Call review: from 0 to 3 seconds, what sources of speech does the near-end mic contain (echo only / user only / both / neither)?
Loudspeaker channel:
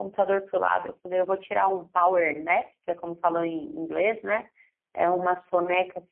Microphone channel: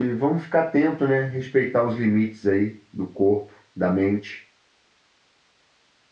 user only